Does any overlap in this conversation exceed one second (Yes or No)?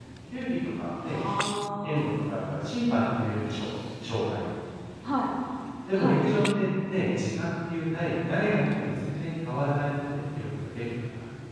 No